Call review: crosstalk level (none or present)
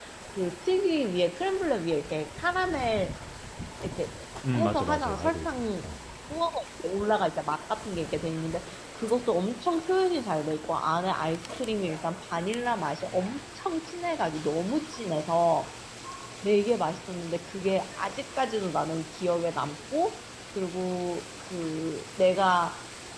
present